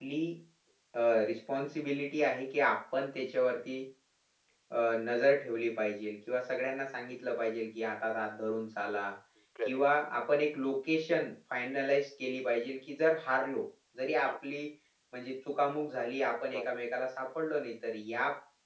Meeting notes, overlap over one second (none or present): none